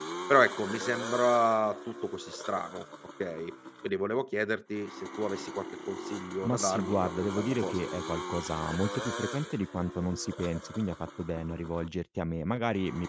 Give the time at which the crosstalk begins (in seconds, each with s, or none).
6.4 s